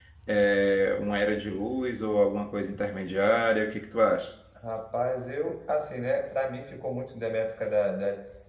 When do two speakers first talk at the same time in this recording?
none

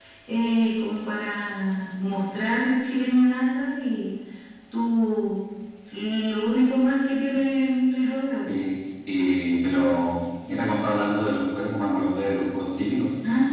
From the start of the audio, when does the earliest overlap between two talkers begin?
none

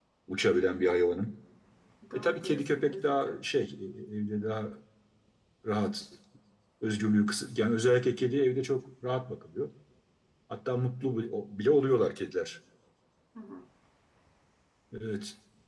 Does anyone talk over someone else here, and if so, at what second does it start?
2 s

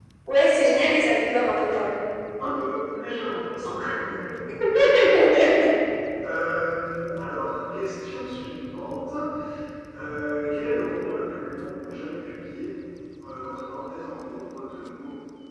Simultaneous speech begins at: none

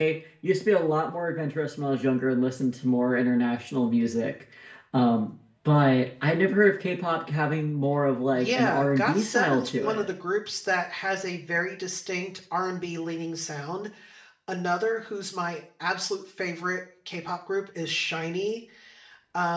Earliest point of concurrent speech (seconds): 8 s

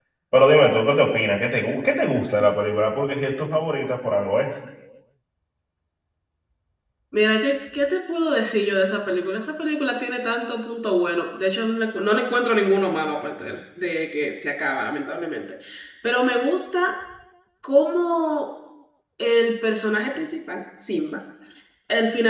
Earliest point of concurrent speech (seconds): none

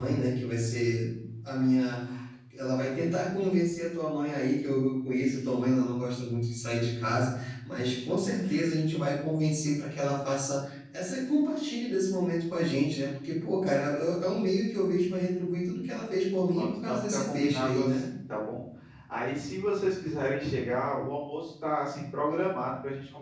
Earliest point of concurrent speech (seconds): 17 s

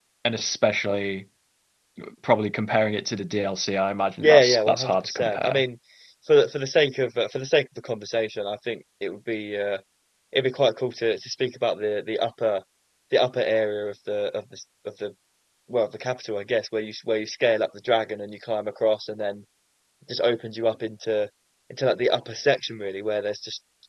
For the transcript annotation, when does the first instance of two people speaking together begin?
4 s

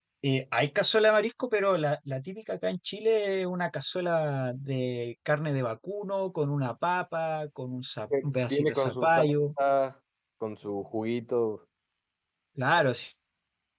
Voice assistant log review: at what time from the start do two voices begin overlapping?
8 s

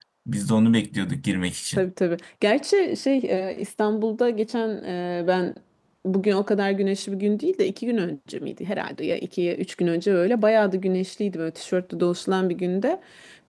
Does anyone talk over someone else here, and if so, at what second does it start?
none

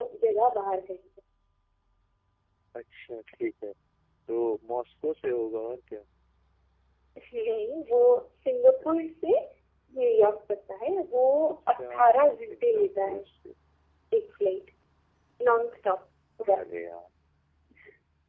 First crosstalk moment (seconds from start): 12 s

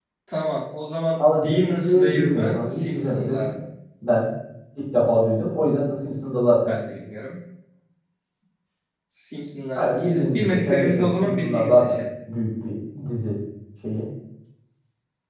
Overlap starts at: 1 s

